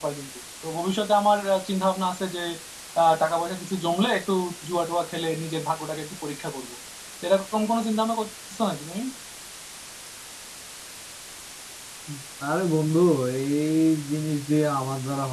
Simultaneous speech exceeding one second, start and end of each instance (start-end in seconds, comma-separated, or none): none